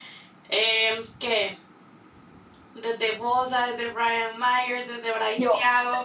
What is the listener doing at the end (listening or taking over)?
listening